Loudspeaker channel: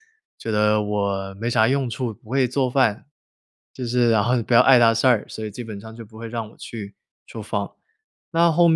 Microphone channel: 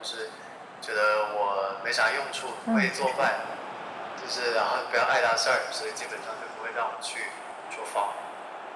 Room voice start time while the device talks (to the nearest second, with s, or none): 3 s